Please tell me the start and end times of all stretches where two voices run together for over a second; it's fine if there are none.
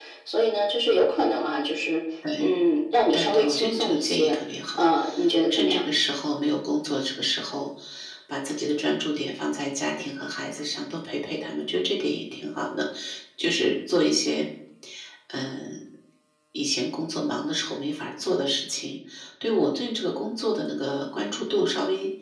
3.1-4.3

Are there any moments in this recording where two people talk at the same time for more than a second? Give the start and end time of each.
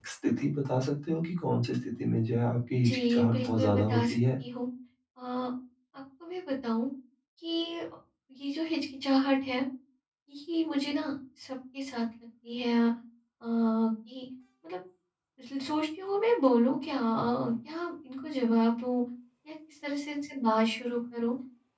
2.8-4.1

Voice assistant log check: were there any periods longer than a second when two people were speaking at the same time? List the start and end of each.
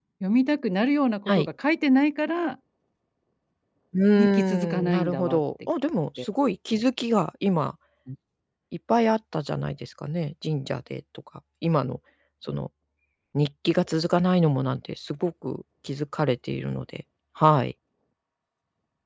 4.2-5.4

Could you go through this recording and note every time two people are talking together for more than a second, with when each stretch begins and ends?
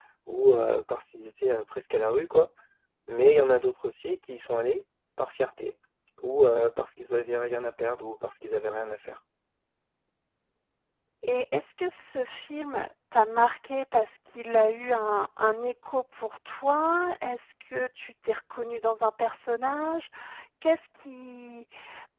none

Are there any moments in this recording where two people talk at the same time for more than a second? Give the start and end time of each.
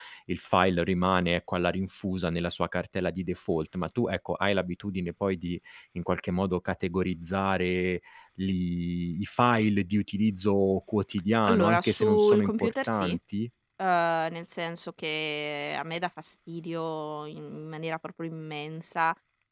11.5-13.1

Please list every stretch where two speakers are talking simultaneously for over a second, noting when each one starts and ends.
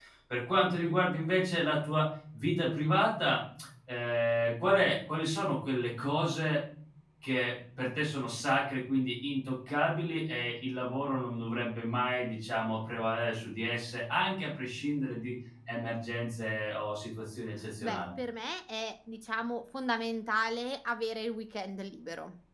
none

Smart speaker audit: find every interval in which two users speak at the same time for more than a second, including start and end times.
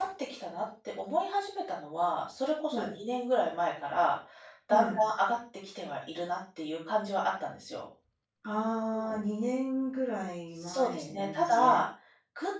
10.6-11.8

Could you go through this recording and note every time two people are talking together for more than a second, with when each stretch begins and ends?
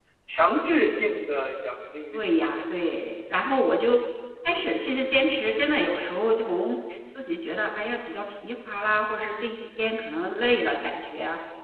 none

